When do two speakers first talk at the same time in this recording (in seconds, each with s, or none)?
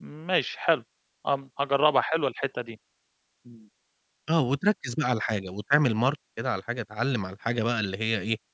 none